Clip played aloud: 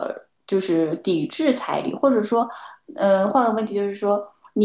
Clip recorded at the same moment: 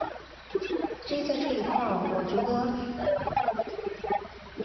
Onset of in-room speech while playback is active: 1.0 s

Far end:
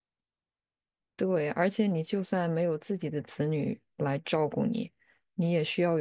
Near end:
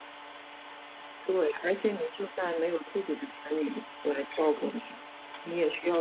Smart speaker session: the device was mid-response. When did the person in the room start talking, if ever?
none

